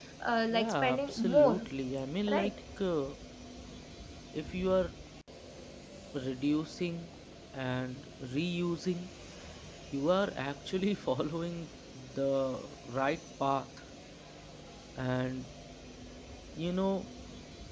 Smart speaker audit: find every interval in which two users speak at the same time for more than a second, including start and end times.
0.5-1.7

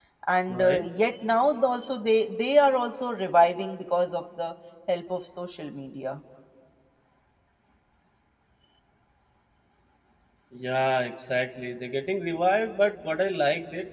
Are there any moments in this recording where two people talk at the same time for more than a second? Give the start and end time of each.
none

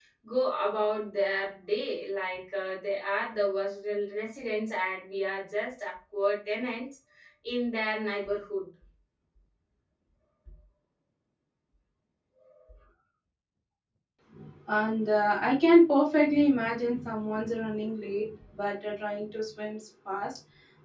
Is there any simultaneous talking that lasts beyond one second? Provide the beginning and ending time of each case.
none

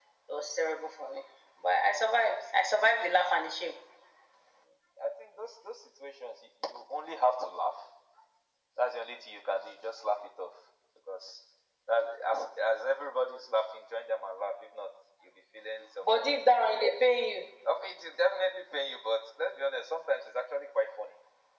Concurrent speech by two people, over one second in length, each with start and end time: none

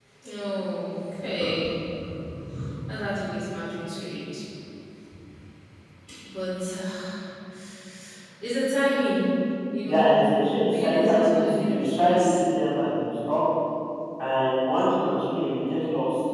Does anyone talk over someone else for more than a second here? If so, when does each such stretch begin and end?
10.7-12.4

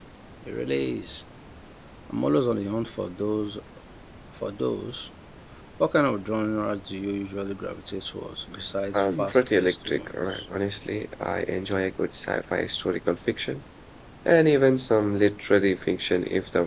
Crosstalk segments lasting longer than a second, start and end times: 8.9-10.4

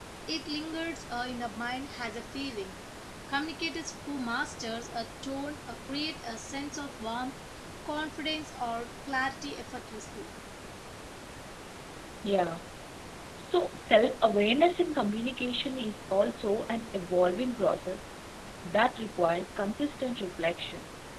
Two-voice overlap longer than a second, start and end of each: none

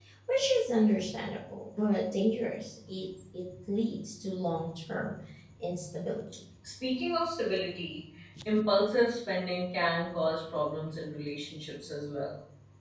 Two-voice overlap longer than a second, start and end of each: none

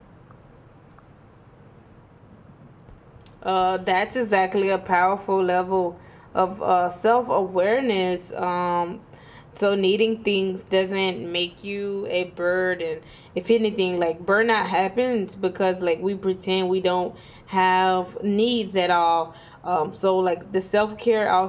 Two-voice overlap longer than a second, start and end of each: none

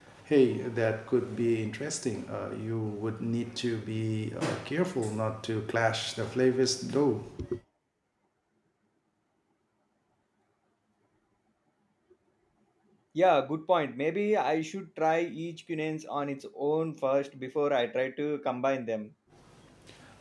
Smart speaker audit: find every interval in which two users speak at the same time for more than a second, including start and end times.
none

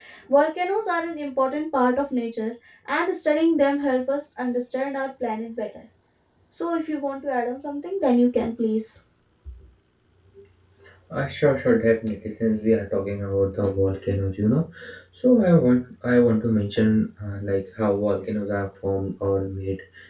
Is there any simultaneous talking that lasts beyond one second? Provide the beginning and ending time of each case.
none

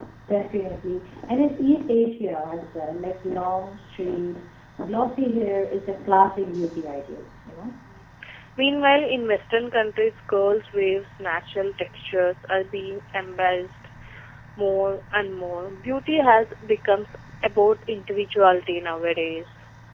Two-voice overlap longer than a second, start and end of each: none

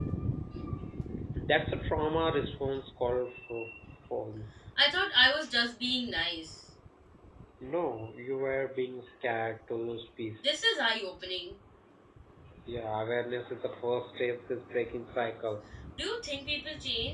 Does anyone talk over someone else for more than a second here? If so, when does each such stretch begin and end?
none

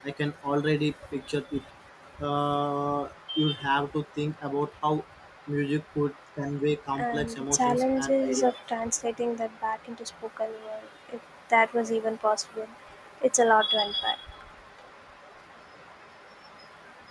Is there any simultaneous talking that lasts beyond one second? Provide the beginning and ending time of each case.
7.0-8.6

